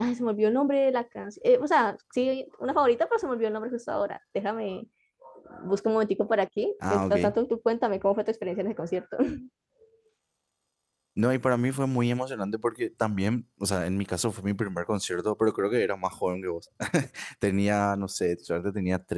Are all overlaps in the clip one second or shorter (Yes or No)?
Yes